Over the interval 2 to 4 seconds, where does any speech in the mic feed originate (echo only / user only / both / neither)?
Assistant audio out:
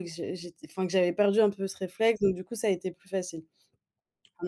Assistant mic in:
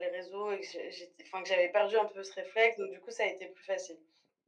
echo only